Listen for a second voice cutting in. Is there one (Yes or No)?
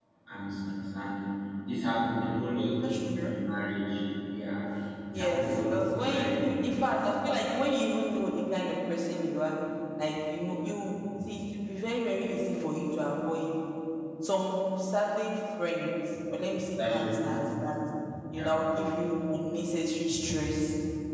Yes